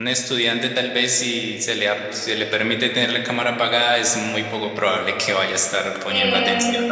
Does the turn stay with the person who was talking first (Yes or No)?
No